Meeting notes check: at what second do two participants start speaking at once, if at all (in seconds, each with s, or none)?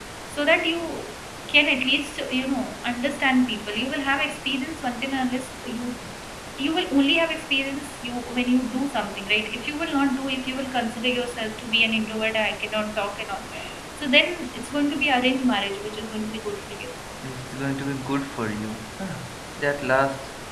none